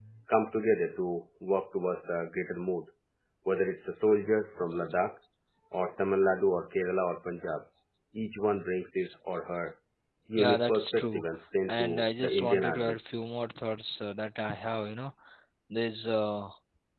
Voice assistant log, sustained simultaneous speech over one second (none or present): present